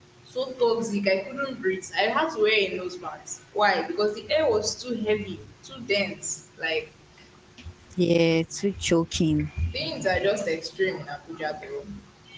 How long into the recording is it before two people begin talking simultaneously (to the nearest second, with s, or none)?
none